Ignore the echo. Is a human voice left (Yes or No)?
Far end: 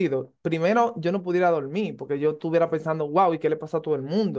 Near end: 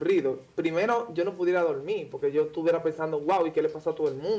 No